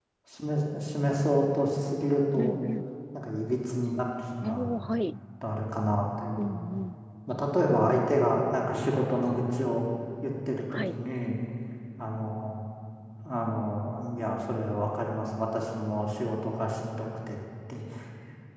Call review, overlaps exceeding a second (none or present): none